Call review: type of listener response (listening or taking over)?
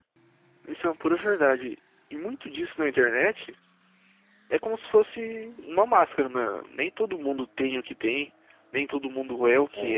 listening